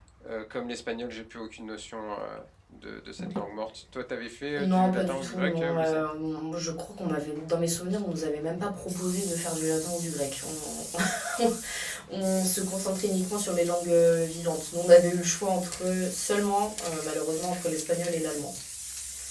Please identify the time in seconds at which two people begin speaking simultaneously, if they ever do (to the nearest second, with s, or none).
5 s